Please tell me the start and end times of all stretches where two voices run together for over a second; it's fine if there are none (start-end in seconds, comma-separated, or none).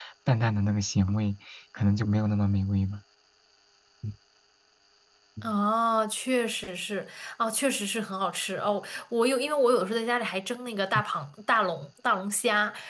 none